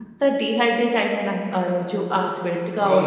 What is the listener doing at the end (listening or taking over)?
taking over